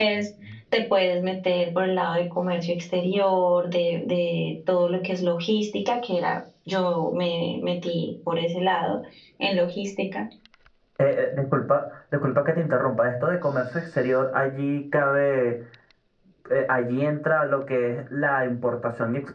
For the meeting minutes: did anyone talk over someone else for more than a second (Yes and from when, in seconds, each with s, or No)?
No